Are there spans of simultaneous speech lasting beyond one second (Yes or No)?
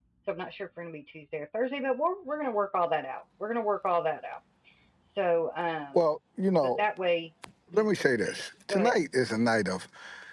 Yes